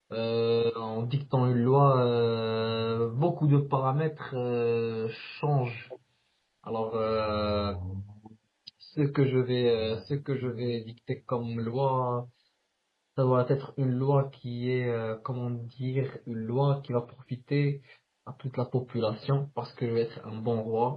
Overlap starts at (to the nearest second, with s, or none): none